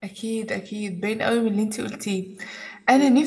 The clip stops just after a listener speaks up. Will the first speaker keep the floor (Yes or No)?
Yes